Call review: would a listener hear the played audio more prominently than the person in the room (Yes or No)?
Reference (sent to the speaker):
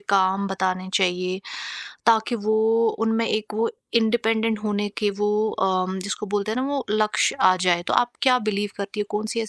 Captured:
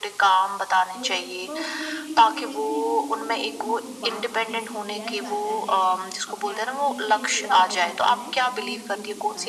Yes